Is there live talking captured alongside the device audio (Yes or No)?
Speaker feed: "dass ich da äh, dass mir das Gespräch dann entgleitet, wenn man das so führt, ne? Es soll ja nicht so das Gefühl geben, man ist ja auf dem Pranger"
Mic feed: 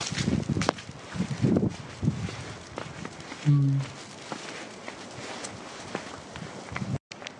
Yes